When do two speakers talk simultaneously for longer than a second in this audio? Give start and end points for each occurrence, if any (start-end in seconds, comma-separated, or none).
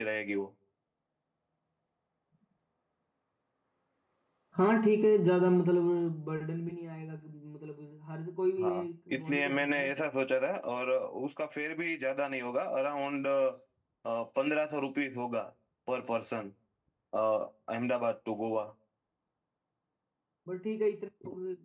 8.6-9.9